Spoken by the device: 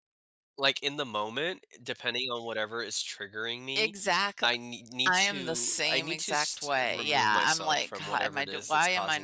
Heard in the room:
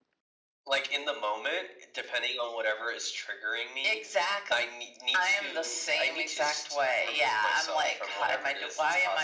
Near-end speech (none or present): none